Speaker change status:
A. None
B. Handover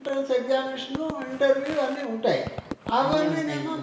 A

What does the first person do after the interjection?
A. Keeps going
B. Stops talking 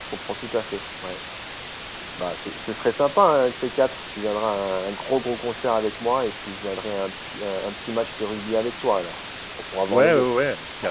B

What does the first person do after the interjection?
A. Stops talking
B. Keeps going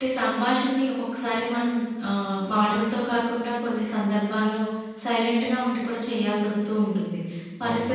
B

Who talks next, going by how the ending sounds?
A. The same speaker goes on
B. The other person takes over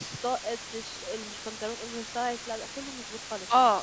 B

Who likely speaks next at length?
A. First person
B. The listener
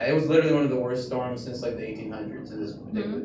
B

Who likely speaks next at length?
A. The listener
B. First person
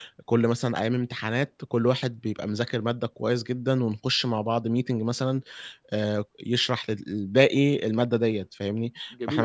A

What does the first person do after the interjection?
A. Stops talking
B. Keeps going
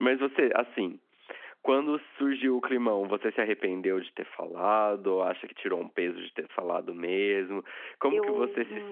B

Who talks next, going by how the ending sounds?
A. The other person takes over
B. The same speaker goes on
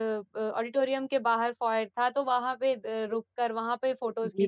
A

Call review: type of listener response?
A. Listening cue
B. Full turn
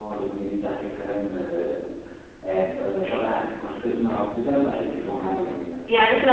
B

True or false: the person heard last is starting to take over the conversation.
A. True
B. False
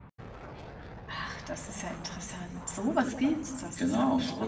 A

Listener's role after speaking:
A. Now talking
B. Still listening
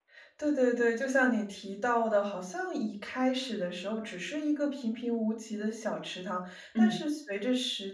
B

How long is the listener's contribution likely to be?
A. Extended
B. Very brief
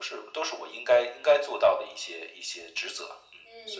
A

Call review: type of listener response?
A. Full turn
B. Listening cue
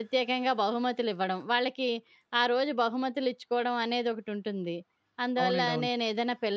B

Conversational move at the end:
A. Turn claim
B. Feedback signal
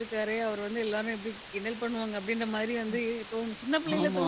B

